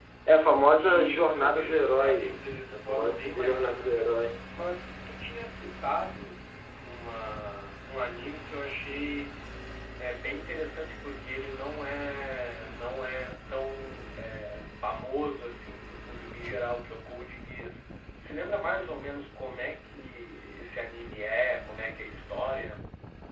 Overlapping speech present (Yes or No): Yes